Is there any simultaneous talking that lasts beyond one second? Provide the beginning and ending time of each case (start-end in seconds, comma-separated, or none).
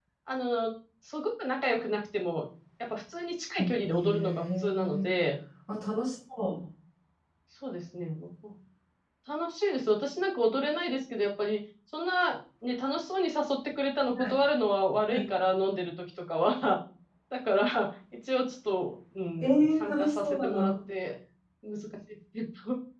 3.6-5.1, 19.4-20.7